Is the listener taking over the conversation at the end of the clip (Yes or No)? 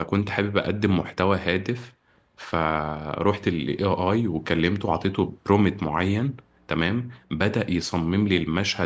No